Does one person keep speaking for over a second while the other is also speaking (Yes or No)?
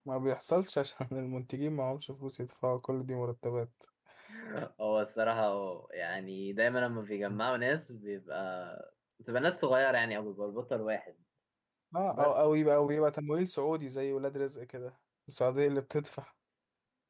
No